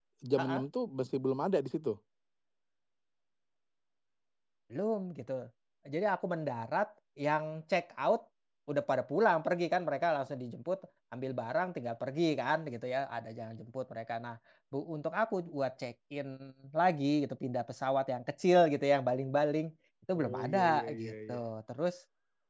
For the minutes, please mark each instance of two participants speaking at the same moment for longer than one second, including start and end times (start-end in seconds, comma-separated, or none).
20.2-21.4